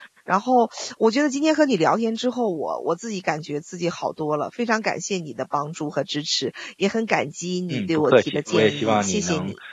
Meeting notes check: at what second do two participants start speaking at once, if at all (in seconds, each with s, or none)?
7.7 s